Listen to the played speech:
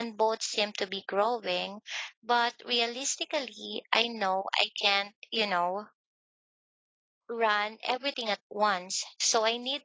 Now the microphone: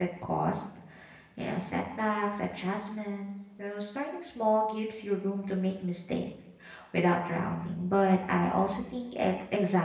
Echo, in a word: none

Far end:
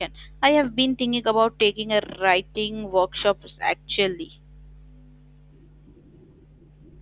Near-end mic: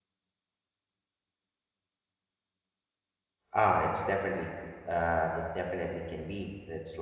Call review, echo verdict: none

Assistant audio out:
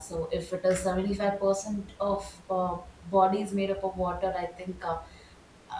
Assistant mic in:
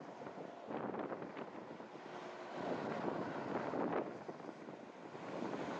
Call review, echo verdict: none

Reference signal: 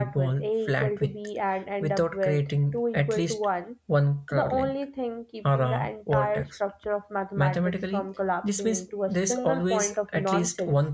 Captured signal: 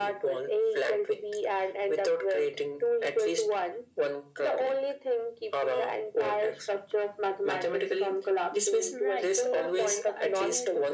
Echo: present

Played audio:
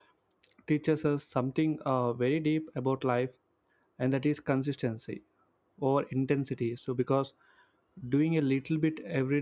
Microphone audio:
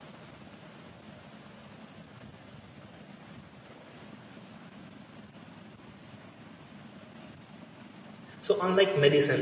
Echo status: none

